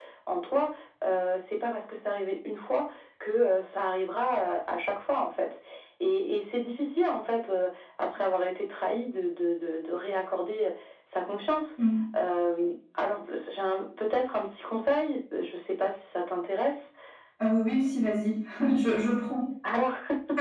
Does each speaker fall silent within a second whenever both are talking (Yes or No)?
Yes